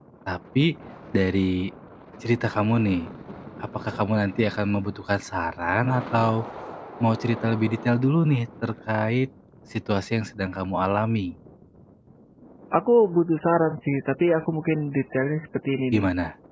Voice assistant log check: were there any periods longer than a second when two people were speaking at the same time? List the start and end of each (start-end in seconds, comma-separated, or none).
none